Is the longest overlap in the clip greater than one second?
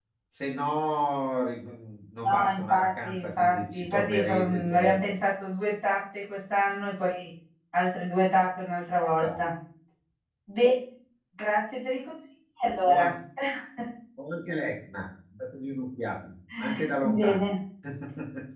Yes, from 2.2 s

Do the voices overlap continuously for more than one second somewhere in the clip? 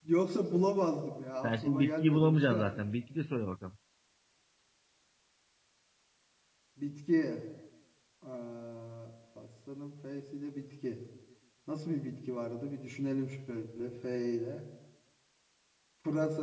Yes, from 1.4 s

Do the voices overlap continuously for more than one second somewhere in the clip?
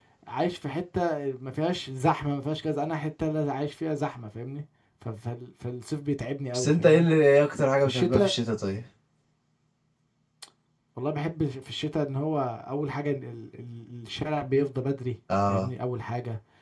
No

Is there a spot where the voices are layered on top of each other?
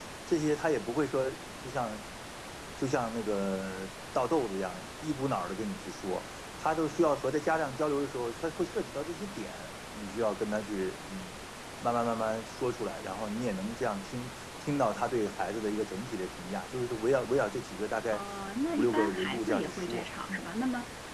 Yes, from 18.7 s

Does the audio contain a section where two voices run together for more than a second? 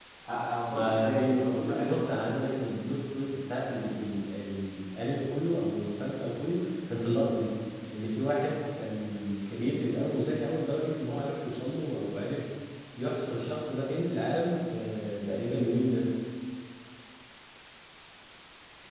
Yes, from 0.7 s

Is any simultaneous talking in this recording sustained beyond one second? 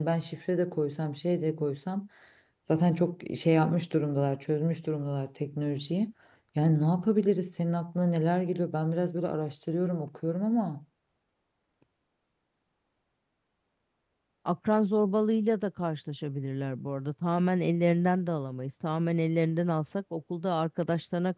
No

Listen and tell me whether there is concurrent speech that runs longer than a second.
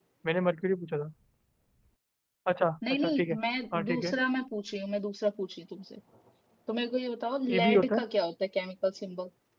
No

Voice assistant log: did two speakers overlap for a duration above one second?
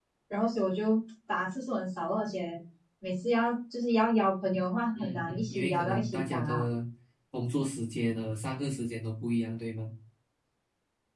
Yes, from 5.0 s

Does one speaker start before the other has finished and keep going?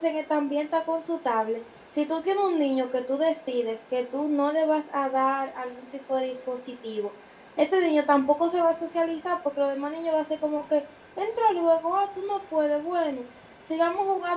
No

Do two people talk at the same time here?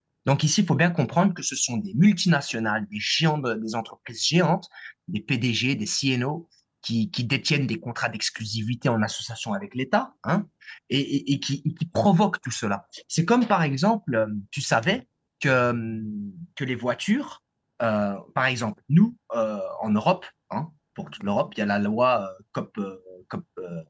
No

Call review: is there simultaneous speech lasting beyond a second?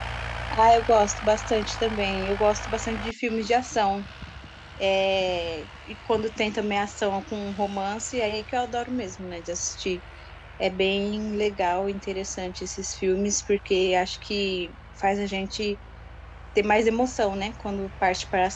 No

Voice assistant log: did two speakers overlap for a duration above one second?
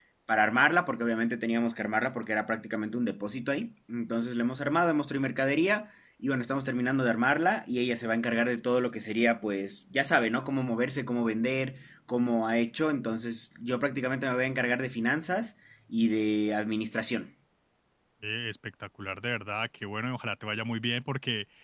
No

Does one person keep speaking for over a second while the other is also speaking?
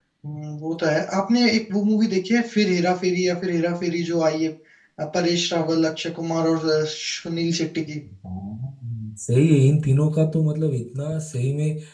No

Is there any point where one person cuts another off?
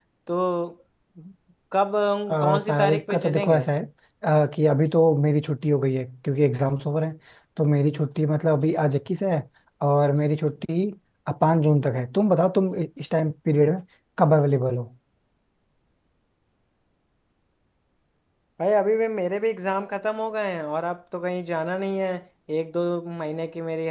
Yes, from 2.3 s

